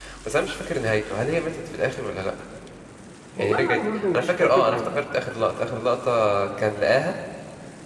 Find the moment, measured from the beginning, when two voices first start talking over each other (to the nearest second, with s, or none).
3 s